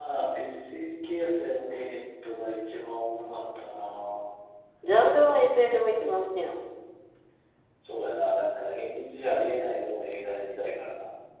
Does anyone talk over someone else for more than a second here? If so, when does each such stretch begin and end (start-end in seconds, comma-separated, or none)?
none